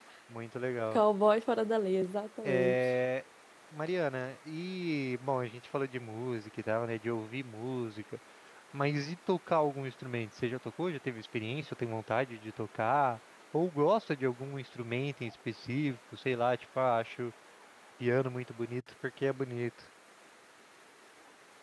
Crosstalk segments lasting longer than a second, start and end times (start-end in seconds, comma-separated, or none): none